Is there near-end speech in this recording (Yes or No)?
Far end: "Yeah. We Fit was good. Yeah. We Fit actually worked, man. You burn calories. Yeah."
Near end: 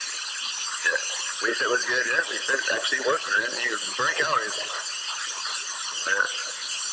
No